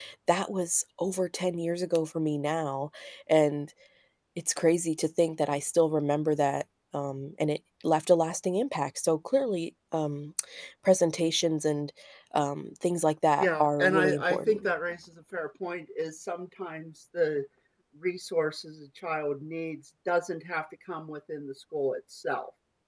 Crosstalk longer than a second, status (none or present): present